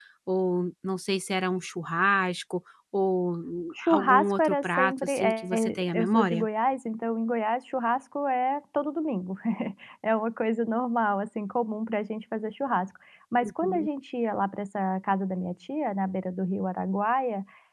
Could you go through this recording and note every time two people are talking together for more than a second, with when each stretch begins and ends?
3.8-6.5

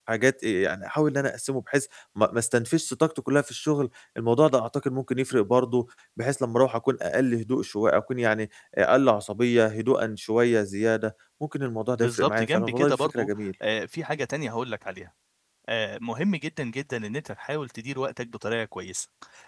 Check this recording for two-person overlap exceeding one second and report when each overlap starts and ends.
12.0-13.3

